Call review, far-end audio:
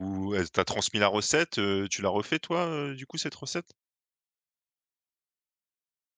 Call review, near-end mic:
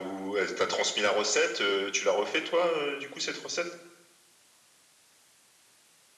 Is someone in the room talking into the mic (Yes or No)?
No